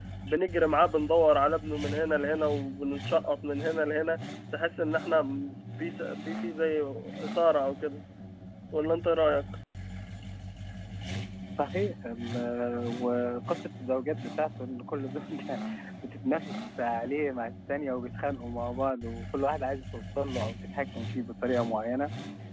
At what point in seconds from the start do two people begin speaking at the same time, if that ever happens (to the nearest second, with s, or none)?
none